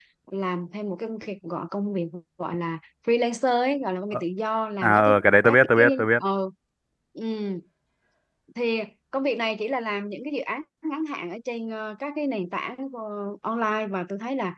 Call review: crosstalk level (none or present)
present